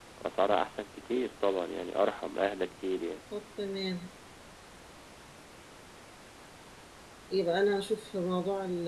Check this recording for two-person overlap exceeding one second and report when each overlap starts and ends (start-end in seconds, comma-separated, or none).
none